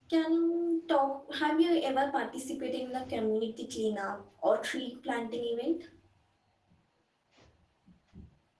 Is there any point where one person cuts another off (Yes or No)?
No